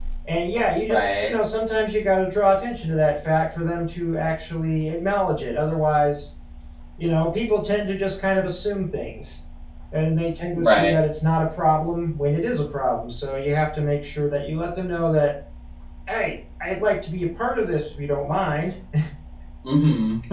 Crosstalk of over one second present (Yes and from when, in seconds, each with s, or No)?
No